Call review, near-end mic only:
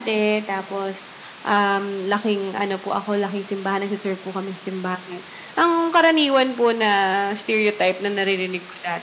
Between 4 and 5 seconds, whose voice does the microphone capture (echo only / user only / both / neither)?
echo only